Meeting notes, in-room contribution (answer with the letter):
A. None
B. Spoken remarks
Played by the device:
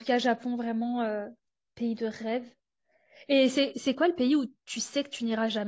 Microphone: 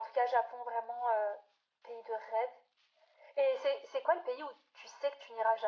A